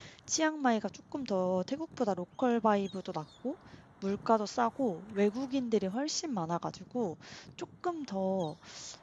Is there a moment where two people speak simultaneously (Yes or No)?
No